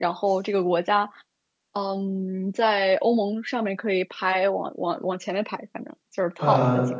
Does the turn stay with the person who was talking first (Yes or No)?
No